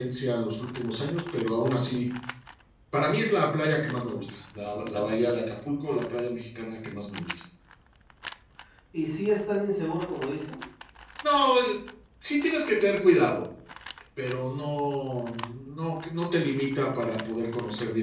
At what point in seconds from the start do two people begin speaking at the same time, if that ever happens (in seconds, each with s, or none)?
none